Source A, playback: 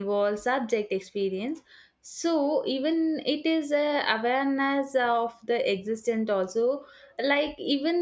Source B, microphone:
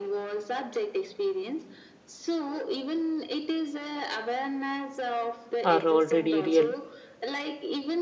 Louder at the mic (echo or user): user